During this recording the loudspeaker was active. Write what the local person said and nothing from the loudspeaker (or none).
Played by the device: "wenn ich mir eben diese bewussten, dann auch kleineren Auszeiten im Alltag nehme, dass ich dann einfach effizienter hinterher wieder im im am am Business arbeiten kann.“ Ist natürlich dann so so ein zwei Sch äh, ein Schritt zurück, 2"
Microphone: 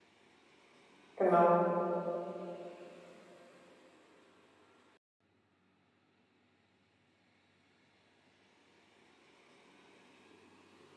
genau.